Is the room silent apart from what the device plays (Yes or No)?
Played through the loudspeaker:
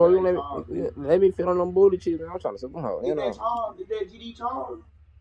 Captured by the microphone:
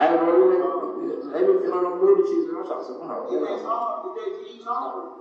Yes